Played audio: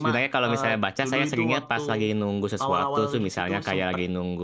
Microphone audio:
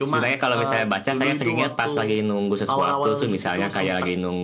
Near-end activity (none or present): none